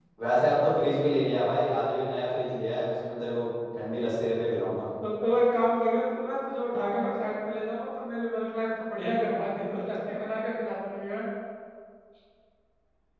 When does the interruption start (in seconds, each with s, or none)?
none